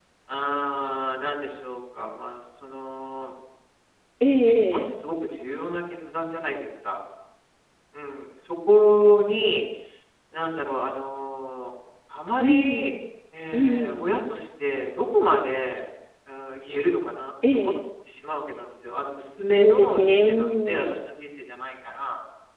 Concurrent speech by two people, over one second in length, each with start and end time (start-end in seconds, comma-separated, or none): 19.4-20.8